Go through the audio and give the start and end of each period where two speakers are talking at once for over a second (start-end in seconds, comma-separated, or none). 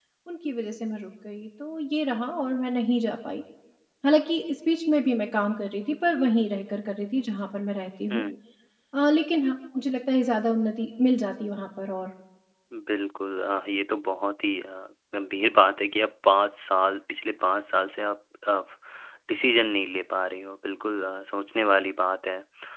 none